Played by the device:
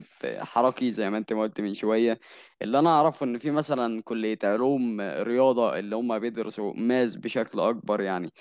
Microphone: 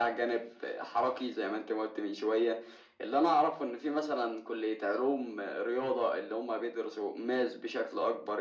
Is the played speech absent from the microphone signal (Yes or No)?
No